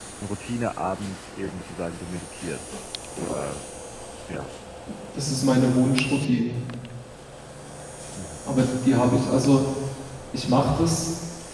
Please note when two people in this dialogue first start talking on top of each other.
none

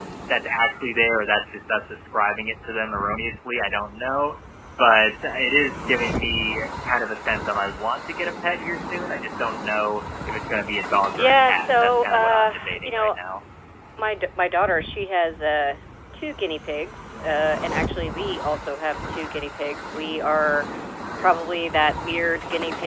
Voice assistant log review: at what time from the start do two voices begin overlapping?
11.2 s

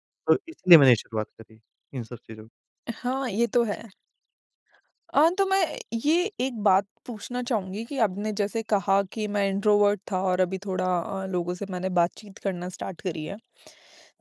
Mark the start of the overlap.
none

